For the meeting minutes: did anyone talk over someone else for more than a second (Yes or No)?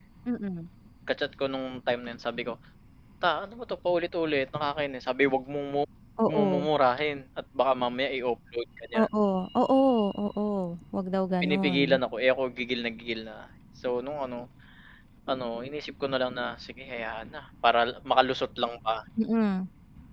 No